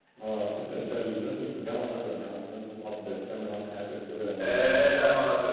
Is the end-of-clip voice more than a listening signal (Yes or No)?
Yes